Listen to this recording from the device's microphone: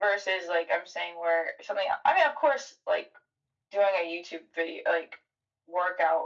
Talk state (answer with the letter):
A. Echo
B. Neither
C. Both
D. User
A